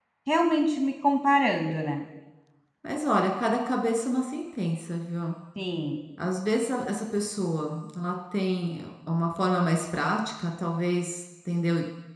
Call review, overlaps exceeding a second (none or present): none